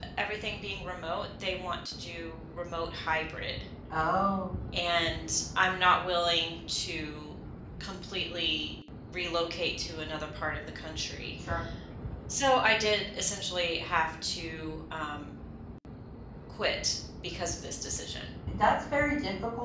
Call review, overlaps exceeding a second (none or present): none